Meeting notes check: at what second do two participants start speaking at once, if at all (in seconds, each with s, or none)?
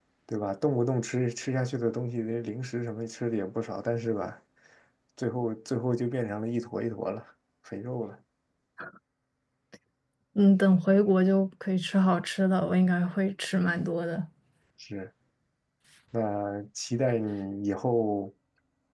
none